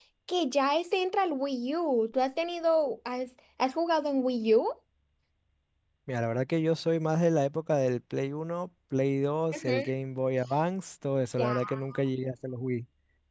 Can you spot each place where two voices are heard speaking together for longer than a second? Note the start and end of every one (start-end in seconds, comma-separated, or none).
none